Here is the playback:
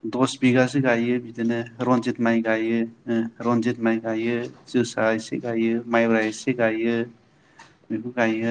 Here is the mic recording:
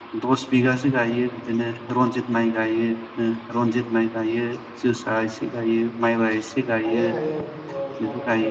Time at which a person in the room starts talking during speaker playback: 6.9 s

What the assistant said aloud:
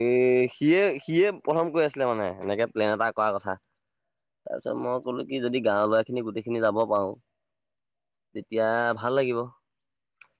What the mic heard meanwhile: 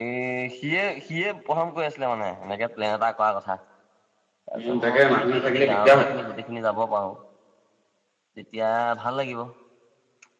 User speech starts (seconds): 4.6 s

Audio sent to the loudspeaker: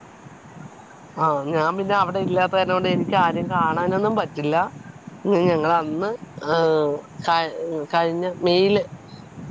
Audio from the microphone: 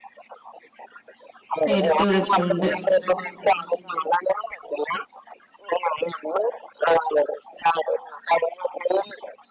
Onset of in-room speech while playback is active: 1.7 s

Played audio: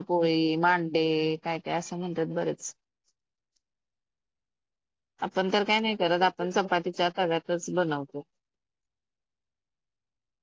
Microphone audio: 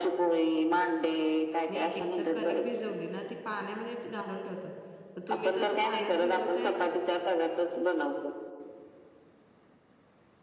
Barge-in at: 1.7 s

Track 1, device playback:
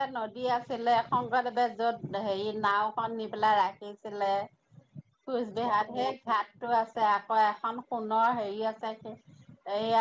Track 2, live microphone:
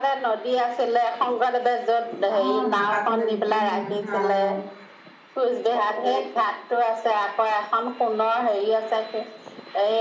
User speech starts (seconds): 2.3 s

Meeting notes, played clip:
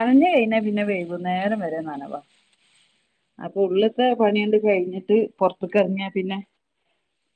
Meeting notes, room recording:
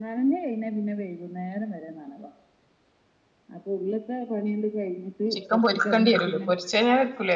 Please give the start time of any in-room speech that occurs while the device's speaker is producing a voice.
5.3 s

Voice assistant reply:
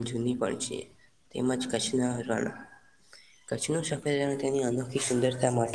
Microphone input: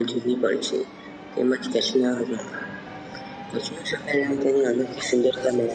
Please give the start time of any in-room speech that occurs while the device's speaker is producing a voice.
none

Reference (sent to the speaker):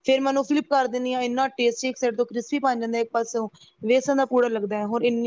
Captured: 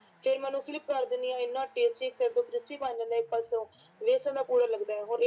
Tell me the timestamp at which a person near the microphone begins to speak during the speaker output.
none

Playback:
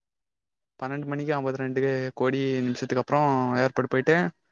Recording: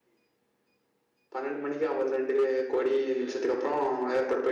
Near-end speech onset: none

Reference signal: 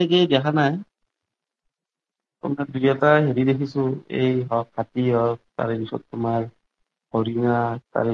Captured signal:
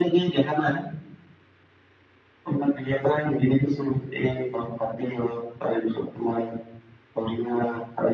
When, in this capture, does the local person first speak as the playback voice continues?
none

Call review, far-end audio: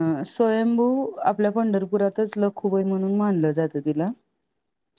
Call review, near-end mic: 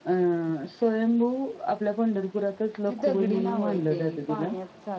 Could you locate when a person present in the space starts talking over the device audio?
2.9 s

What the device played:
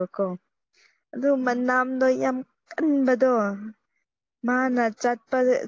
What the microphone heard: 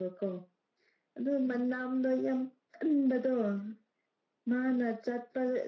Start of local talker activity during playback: none

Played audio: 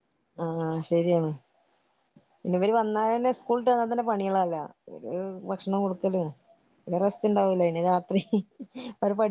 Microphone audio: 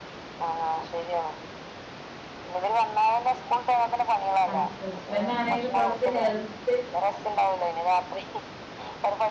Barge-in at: 4.5 s

